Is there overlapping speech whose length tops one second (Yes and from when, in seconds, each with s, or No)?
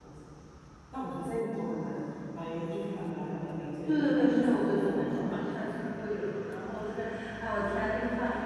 Yes, from 3.9 s